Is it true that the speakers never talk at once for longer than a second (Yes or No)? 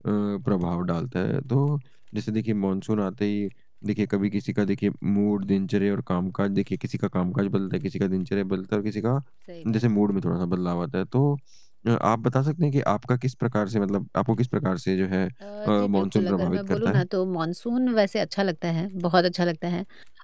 No